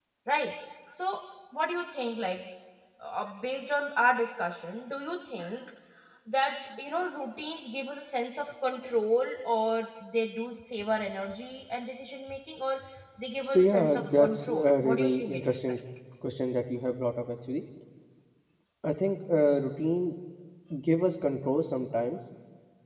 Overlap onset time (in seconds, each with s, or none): 13.4 s